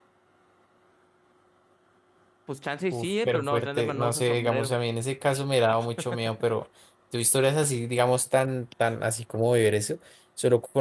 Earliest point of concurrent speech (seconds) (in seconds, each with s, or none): 2.9 s